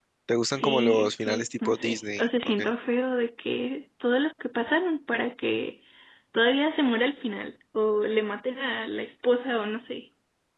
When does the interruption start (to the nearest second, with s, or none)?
1 s